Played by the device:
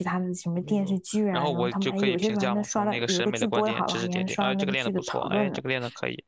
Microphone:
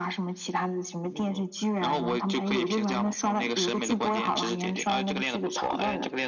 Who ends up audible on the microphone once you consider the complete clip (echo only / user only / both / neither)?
echo only